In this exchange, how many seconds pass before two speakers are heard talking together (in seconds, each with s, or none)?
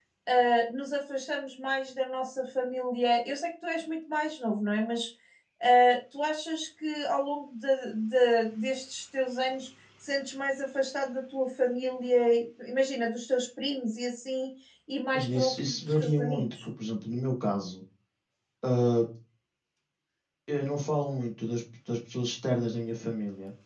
15.1 s